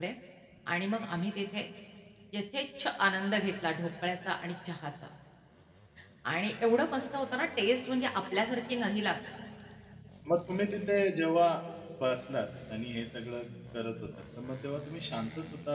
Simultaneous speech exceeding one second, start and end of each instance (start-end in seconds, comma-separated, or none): none